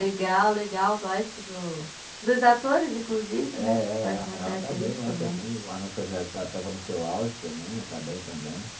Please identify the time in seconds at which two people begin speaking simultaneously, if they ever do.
3.5 s

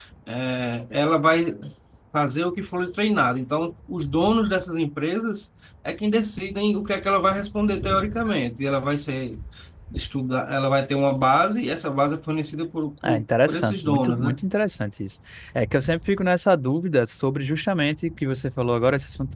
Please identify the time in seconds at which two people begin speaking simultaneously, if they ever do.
13.0 s

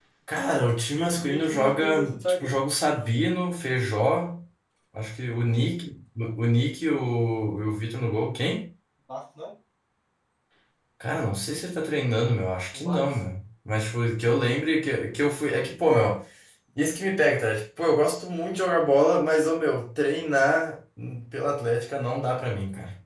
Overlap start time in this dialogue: 0.9 s

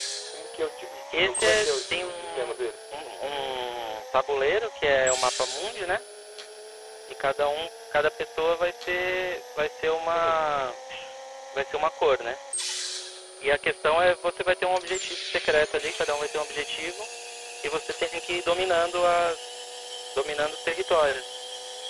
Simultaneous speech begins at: 1.1 s

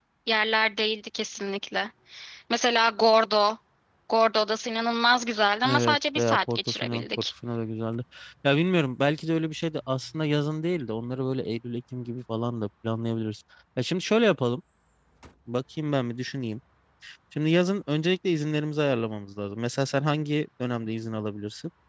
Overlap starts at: 5.6 s

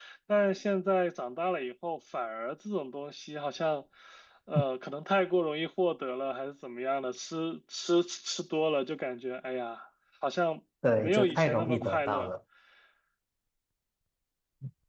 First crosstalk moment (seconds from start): 10.8 s

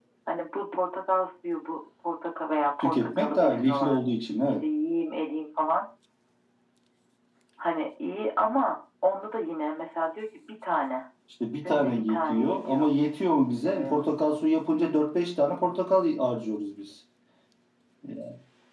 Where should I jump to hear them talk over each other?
2.8 s

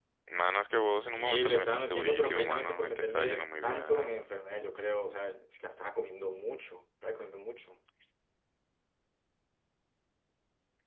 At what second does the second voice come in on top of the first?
1.1 s

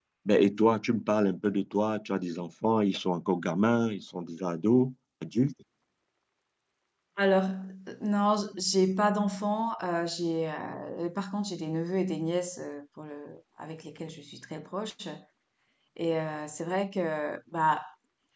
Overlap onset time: none

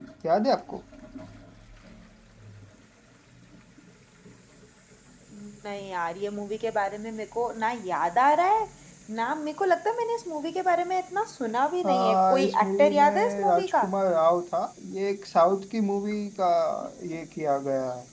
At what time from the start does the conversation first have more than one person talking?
11.8 s

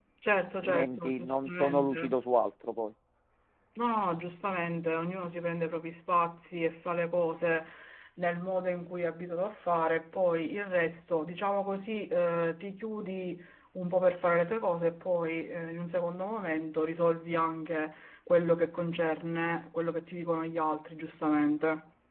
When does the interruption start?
0.6 s

